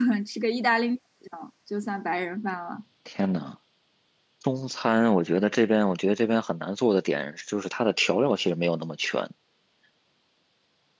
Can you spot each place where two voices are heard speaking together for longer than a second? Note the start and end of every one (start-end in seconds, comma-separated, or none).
none